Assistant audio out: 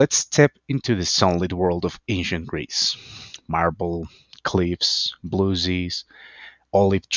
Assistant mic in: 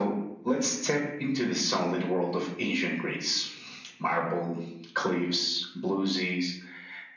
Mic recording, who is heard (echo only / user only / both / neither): echo only